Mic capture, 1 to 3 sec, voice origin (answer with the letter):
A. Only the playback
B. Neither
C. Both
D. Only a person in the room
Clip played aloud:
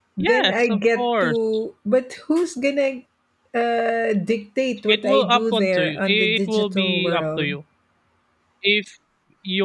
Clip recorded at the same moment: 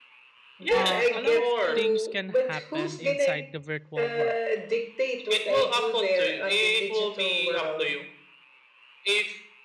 C